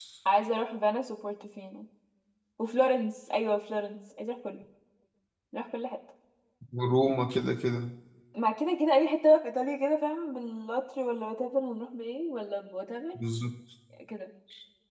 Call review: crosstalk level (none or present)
none